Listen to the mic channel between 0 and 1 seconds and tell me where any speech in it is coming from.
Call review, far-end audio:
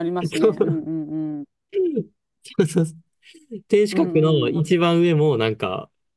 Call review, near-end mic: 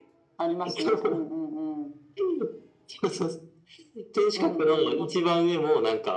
echo only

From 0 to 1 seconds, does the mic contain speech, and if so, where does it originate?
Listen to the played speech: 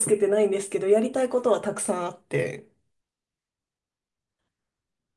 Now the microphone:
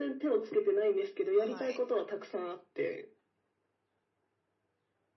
echo only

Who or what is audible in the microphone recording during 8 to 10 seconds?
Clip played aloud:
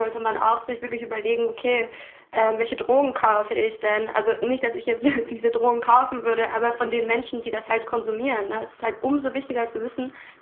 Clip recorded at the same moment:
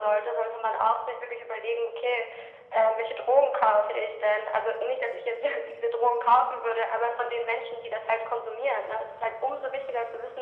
echo only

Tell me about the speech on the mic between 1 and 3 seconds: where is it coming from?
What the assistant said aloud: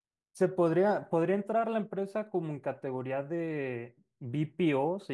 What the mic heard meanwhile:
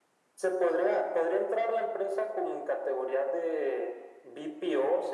echo only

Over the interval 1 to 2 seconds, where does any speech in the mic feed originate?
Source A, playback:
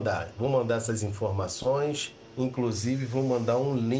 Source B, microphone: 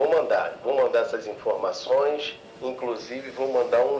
echo only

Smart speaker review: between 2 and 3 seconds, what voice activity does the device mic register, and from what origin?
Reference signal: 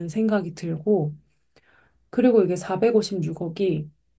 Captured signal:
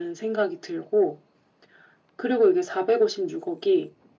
echo only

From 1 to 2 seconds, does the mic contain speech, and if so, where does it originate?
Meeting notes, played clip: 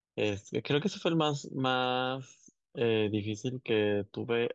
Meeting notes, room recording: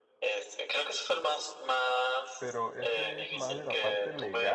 echo only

